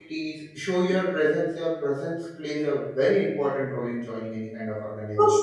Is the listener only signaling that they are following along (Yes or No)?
No